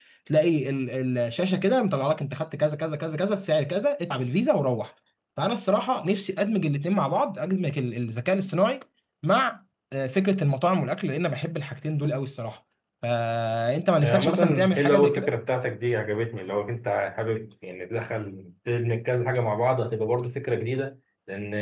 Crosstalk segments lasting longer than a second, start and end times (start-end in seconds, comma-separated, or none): 14.0-15.3